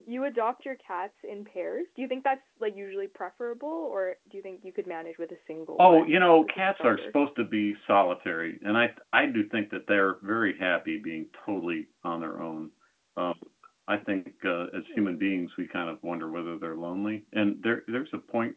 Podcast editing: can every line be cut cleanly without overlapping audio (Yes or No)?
No